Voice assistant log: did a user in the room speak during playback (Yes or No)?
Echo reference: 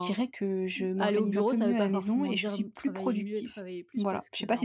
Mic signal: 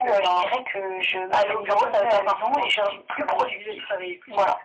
No